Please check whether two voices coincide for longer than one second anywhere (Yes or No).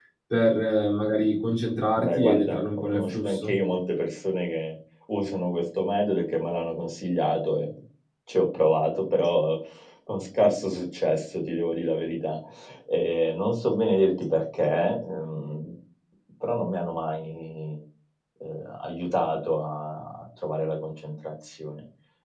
Yes